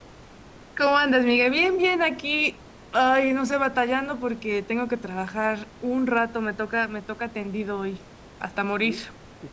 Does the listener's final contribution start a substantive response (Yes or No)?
Yes